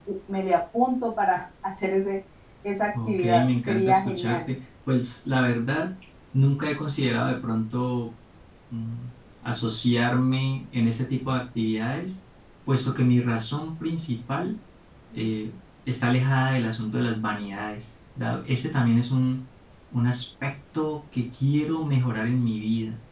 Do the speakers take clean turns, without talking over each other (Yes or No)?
No